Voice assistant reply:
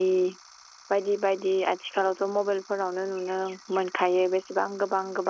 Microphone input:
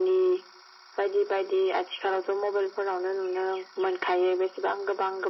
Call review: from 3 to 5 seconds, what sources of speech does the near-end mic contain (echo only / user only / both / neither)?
echo only